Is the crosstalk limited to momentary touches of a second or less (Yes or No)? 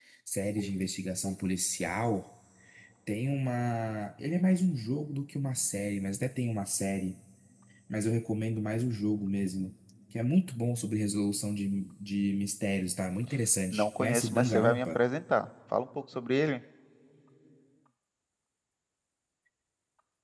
No